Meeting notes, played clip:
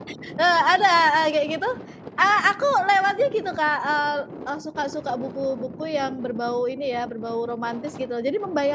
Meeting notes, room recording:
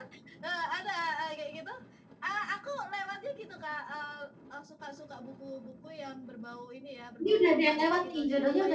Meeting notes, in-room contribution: present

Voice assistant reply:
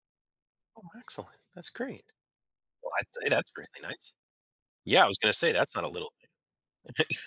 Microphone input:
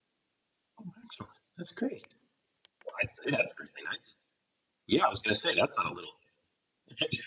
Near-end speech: none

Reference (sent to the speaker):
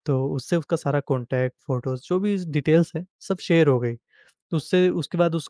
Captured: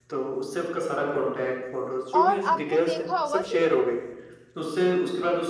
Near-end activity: present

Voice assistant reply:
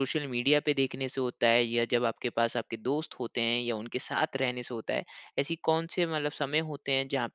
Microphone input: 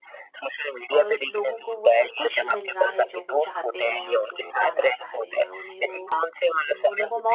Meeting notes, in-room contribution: present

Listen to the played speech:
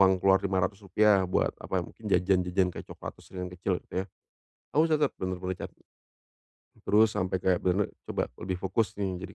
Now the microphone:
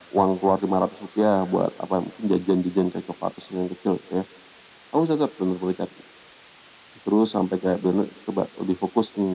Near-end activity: none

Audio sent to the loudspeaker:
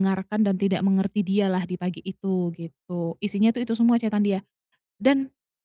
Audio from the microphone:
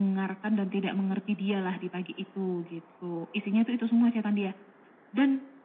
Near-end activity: none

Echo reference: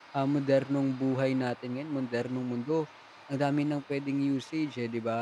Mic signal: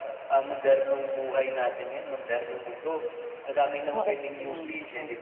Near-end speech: present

